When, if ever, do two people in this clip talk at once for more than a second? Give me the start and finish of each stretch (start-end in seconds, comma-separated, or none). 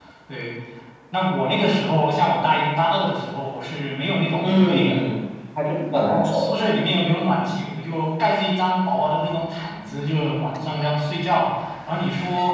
none